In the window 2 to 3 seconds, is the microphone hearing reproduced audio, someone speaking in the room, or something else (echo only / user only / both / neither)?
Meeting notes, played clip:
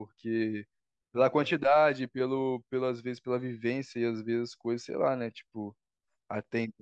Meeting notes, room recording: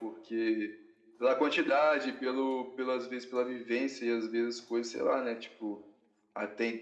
echo only